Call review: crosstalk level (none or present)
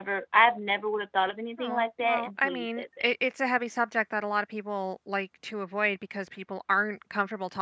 present